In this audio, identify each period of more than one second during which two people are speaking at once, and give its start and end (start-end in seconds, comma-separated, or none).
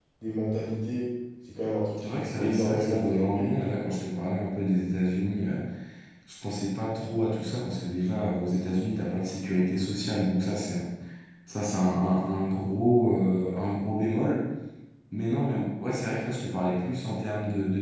2.0-3.9